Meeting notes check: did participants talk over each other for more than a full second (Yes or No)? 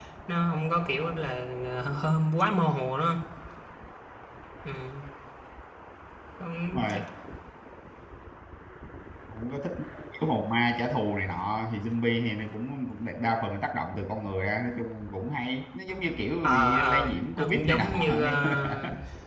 Yes